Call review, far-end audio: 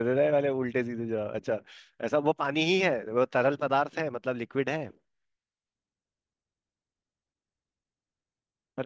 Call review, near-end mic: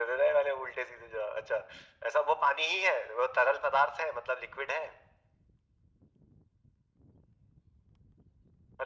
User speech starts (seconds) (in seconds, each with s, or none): none